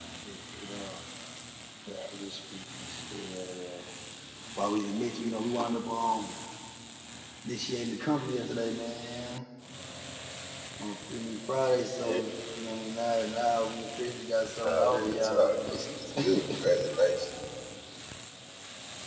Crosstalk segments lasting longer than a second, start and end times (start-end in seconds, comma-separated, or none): 14.7-16.0